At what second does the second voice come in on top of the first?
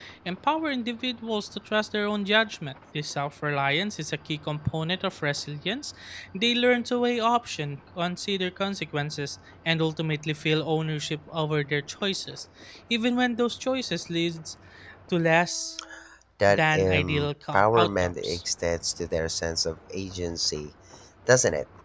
16 s

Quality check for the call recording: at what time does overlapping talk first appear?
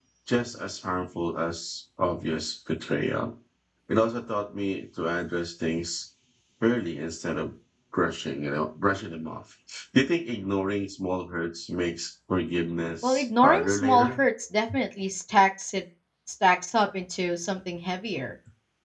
13 s

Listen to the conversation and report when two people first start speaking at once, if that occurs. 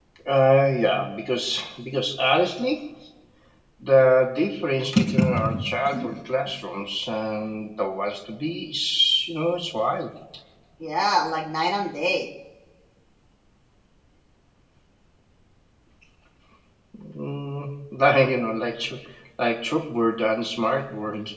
none

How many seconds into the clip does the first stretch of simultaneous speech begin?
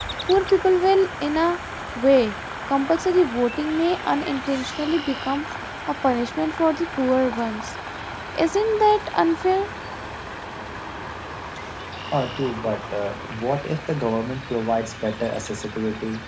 none

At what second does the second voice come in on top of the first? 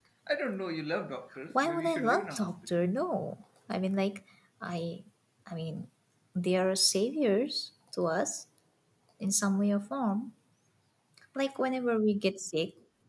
2 s

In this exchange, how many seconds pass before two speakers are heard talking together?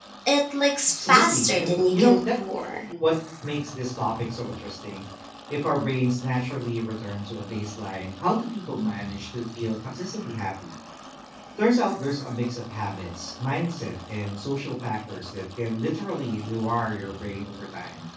1 s

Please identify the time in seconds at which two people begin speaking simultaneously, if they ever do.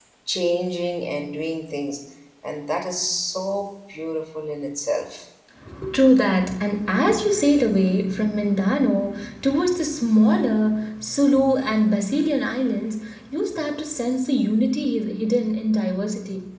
none

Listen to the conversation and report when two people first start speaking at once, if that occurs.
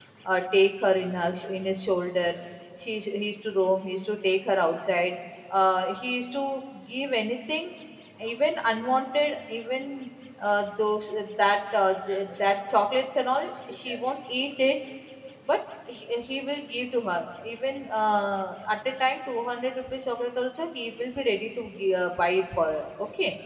none

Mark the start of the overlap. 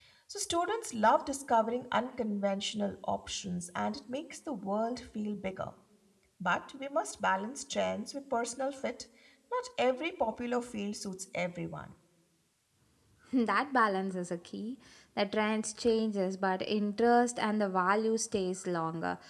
none

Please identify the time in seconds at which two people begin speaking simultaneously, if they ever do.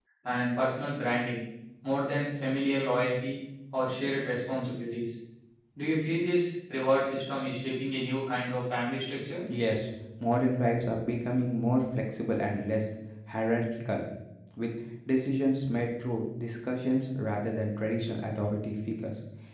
none

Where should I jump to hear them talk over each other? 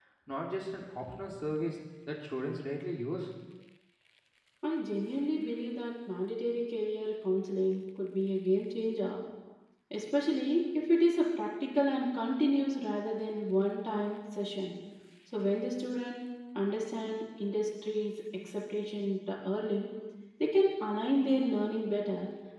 none

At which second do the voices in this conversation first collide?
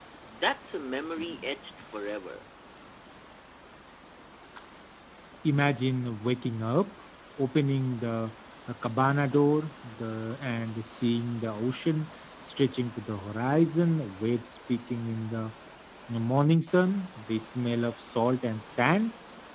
none

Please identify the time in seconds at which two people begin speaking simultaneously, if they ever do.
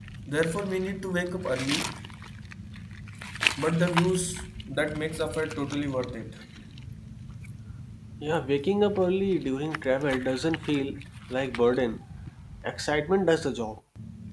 none

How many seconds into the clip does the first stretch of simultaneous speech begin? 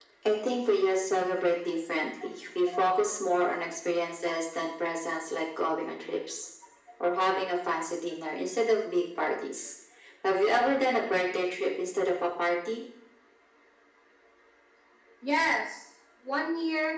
none

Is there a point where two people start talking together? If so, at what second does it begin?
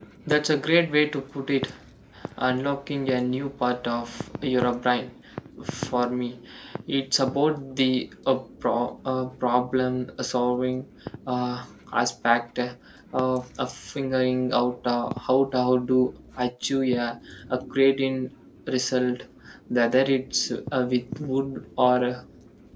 none

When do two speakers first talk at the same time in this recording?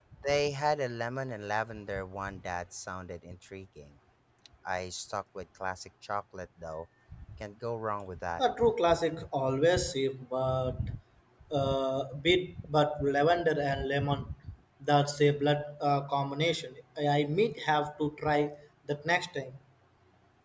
none

